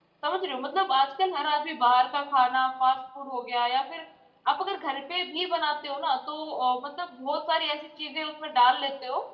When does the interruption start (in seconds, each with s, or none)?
none